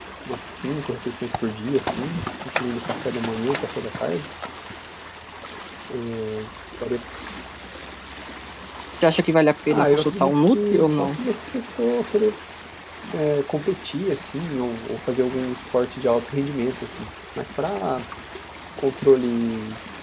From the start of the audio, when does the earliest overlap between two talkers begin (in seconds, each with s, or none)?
9.7 s